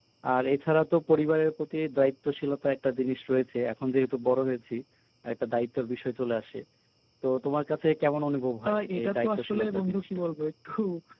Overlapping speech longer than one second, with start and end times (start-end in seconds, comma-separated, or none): 8.7-10.1